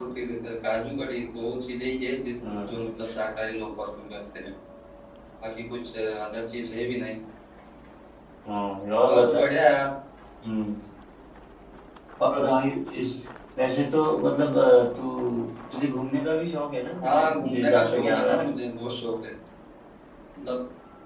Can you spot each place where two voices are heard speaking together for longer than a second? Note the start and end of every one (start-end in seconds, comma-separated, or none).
17.0-18.5